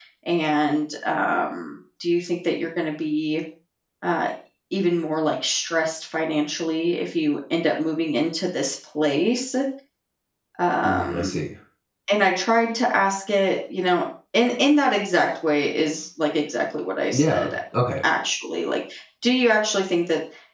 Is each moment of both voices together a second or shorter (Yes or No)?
Yes